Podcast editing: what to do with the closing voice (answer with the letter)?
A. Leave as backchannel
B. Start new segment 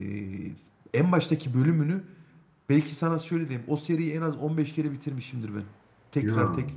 A